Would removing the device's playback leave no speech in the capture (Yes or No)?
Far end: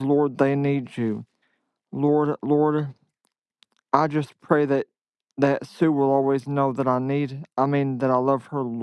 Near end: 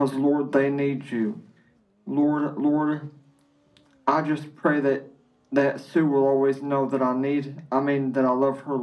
Yes